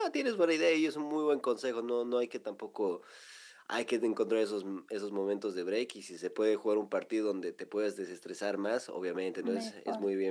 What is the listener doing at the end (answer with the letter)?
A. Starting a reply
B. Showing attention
B